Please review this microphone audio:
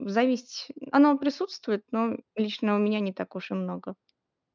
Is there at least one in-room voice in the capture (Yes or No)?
Yes